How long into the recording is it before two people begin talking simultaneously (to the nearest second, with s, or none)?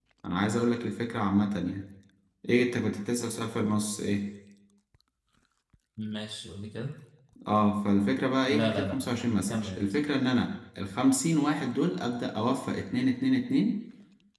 8 s